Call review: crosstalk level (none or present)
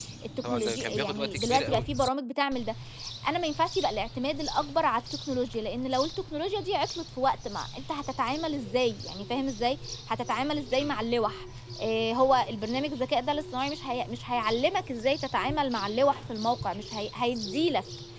present